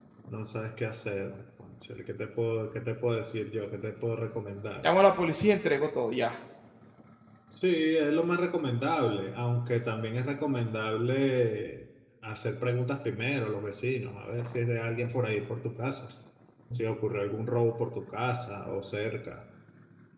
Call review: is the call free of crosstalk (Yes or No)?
Yes